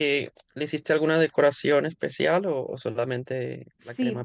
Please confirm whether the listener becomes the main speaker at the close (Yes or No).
Yes